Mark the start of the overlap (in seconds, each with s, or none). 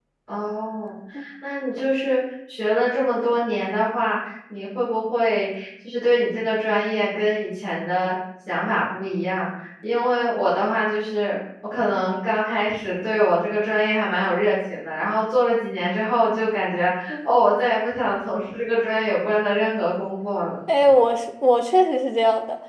none